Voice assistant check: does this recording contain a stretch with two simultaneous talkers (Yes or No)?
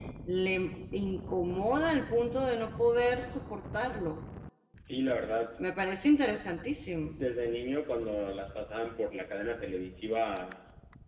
No